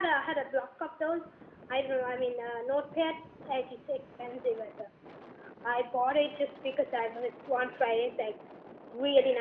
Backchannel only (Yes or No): Yes